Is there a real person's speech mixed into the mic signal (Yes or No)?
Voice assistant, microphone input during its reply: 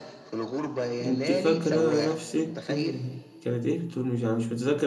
Yes